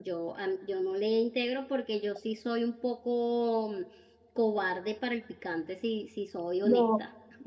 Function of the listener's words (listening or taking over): taking over